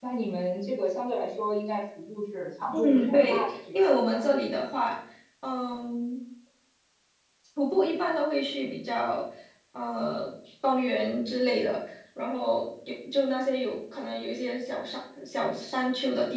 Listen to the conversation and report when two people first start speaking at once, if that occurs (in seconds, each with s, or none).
2.7 s